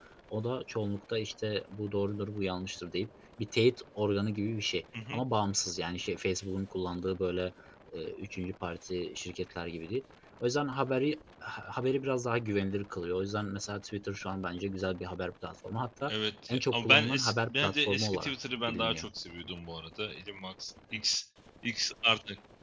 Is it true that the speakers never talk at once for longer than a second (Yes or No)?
No